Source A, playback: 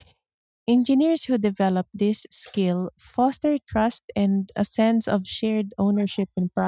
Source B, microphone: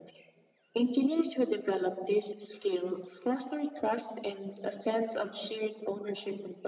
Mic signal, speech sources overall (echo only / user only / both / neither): echo only